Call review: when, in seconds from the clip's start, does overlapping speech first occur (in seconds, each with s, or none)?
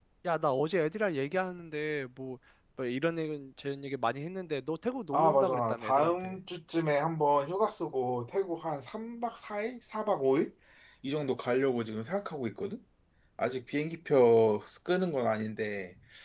5.1 s